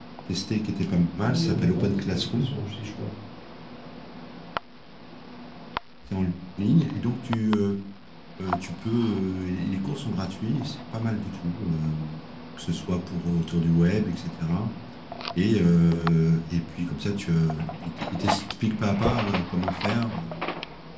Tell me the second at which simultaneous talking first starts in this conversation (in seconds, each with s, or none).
1.2 s